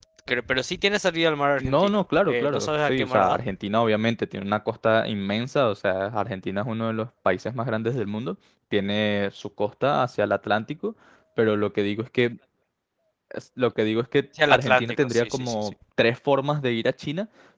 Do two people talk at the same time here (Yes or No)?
Yes